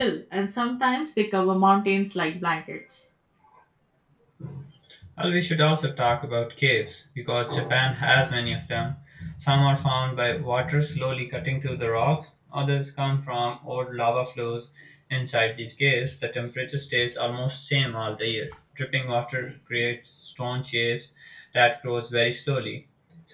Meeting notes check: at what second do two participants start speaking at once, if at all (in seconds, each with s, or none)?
none